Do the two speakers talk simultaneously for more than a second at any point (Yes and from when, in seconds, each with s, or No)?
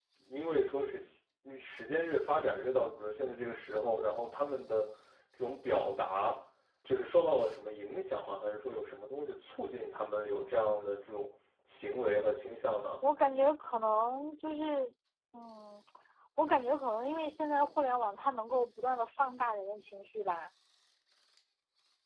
No